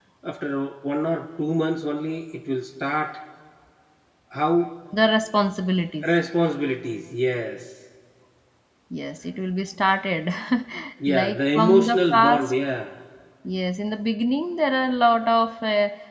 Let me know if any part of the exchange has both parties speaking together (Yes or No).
Yes